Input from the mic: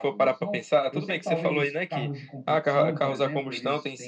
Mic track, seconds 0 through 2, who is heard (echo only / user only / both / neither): echo only